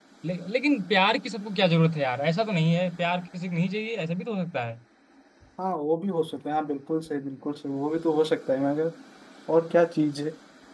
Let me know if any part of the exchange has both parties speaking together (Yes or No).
No